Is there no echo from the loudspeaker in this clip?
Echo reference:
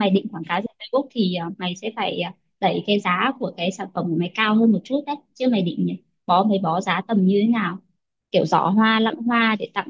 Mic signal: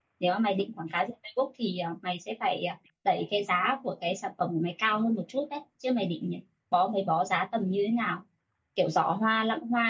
No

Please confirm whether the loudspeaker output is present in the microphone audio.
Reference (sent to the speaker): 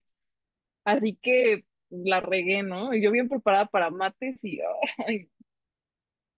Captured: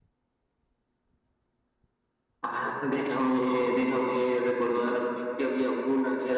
No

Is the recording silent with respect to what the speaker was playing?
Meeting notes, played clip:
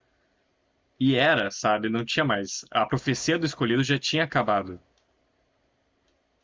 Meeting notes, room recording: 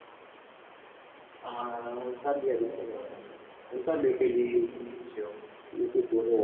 Yes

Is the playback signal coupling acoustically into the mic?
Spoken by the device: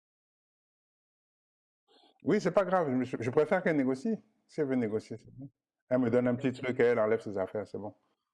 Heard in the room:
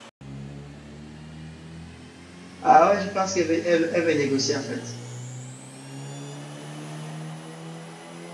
No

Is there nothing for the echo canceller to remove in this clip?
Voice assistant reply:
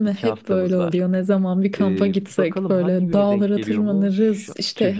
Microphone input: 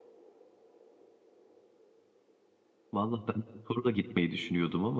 Yes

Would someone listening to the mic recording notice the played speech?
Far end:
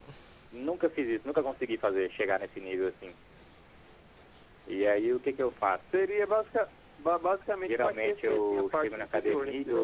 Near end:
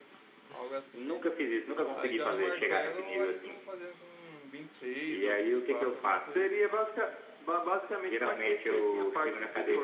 Yes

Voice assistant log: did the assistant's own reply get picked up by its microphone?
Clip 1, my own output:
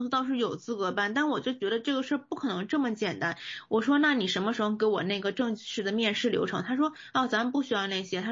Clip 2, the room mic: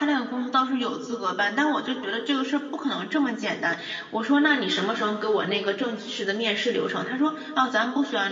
Yes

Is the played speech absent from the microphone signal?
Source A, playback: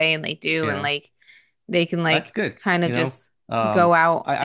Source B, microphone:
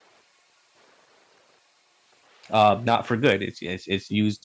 Yes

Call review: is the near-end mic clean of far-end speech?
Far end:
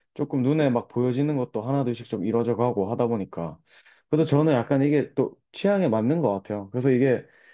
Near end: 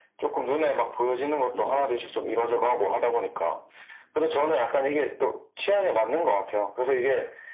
No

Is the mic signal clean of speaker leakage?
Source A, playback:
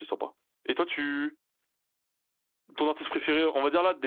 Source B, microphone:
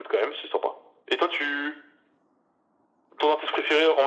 No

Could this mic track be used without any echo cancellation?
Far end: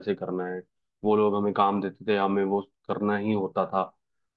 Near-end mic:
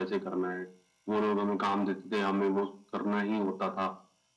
No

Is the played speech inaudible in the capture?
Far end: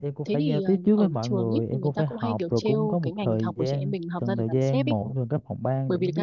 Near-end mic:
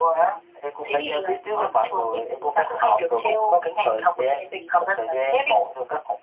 No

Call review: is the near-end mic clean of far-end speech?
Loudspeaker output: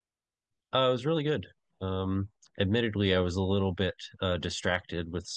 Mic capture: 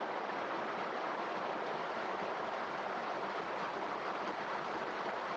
Yes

